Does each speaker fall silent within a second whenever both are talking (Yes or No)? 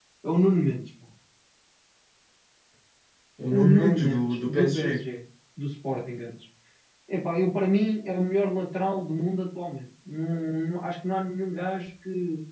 No